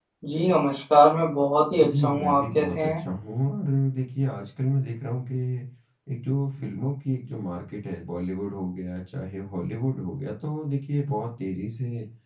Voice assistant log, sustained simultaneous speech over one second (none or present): present